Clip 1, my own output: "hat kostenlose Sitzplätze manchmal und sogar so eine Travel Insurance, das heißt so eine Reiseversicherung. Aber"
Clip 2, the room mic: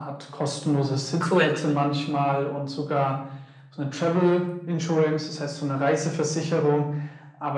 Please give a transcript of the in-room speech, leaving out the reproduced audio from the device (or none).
Cool.